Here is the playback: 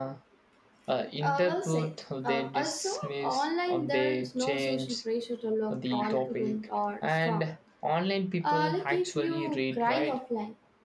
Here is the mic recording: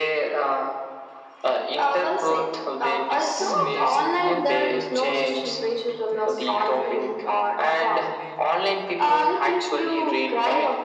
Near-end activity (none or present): present